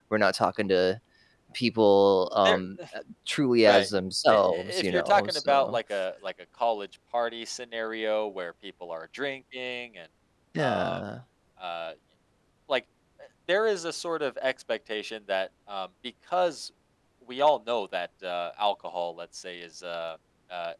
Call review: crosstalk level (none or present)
present